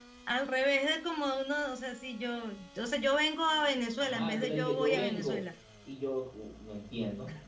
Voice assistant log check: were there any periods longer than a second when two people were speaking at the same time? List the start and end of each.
4.0-5.4

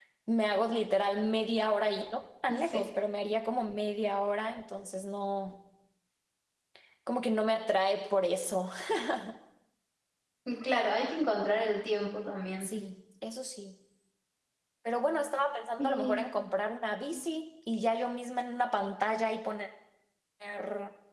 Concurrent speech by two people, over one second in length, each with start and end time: none

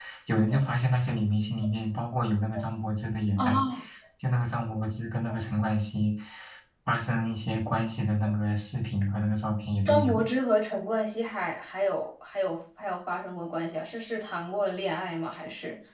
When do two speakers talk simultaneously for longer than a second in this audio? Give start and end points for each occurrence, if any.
none

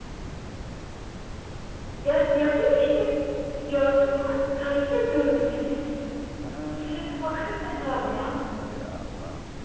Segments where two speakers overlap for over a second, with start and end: 6.7-8.3

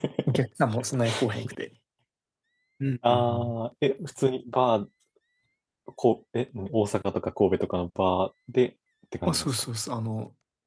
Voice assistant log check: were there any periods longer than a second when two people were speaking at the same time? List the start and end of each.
none

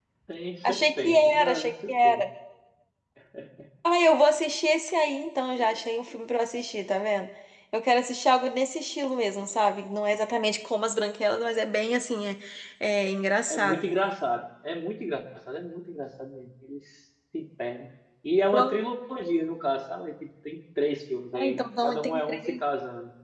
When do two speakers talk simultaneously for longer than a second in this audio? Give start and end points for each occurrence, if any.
0.6-2.2, 21.3-22.6

